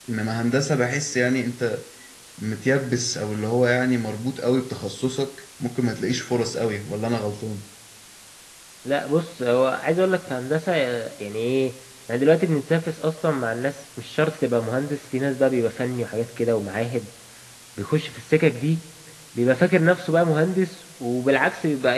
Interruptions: none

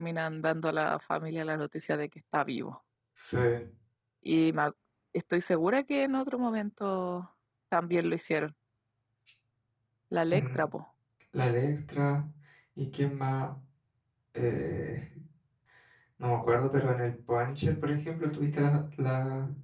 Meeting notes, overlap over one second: none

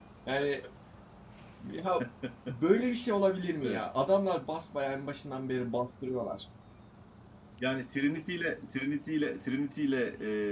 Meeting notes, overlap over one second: none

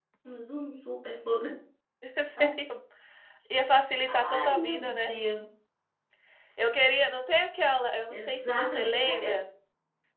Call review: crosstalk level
present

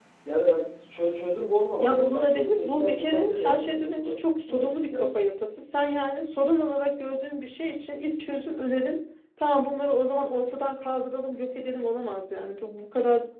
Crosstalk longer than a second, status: present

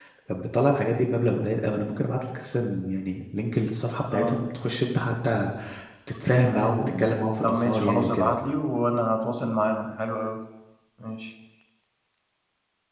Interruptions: present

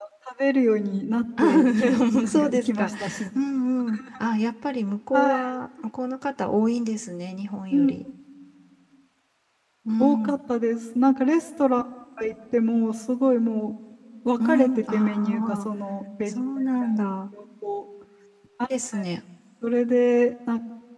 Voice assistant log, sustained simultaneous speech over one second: present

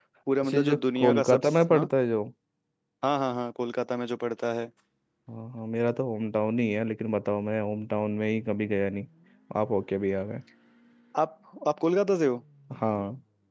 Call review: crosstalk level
present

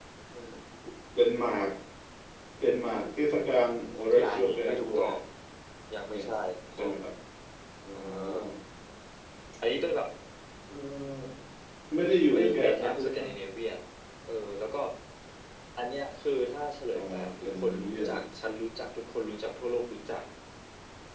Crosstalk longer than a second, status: present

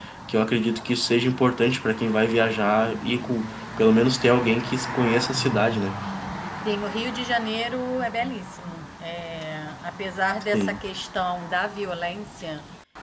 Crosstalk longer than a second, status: none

